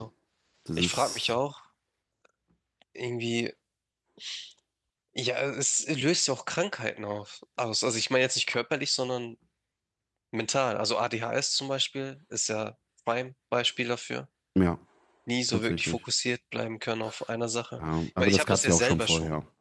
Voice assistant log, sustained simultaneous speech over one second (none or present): present